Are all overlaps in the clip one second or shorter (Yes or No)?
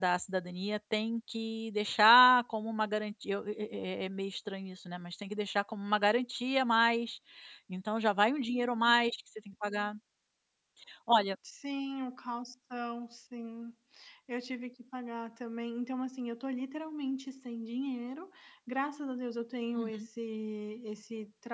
Yes